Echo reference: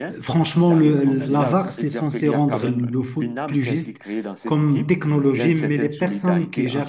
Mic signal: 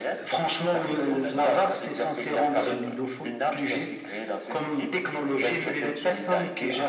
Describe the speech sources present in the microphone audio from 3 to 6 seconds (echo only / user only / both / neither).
echo only